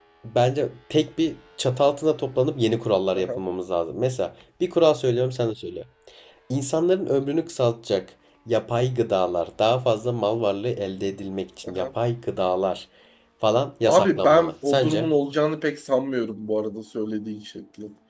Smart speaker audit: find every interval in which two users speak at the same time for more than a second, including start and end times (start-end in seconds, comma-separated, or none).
13.9-15.1